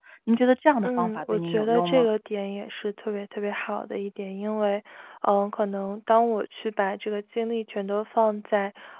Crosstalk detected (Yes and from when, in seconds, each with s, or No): Yes, from 0.8 s